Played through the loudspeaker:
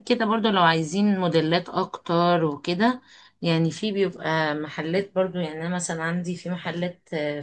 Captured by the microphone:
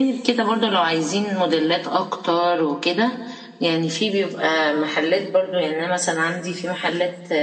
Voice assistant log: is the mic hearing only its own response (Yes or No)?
Yes